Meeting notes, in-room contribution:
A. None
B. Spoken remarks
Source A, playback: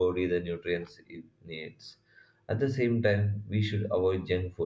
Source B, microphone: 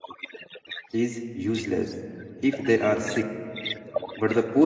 B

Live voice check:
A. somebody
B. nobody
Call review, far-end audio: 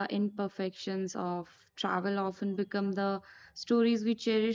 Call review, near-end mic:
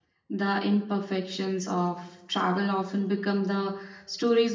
B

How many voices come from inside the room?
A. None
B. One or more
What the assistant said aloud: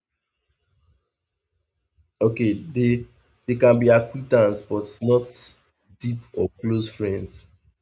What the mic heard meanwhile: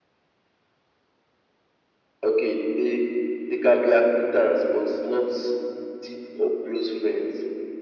A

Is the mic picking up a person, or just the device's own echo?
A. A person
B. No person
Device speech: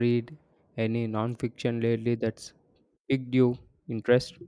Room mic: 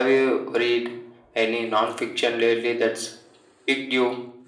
B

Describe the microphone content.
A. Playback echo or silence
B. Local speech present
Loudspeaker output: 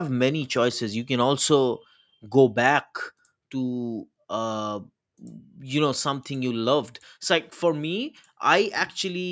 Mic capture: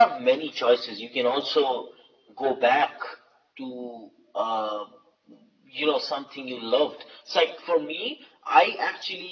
A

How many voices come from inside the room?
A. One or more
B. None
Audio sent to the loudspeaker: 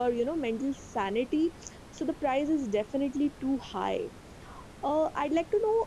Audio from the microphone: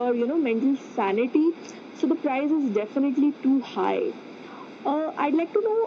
B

